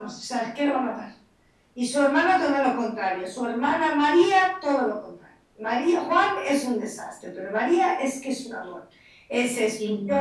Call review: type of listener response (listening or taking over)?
listening